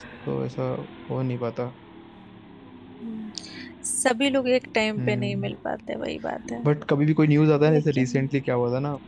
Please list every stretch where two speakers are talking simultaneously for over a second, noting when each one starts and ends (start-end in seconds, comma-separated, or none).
none